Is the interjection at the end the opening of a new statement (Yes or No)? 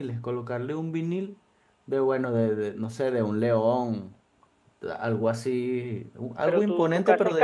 Yes